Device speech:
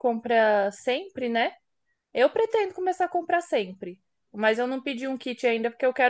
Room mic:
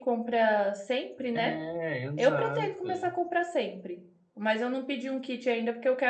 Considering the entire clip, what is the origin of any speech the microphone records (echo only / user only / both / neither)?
both